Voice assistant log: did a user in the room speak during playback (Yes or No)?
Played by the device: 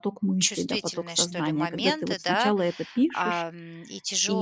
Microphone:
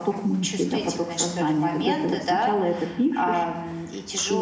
No